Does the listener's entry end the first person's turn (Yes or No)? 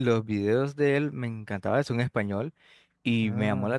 No